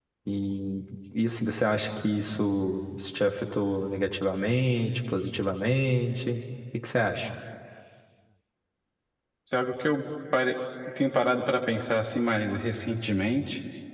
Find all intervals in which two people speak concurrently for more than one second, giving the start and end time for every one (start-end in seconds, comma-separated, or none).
none